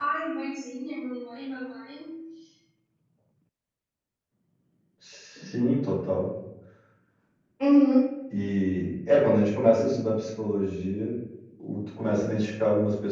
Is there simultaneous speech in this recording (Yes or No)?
No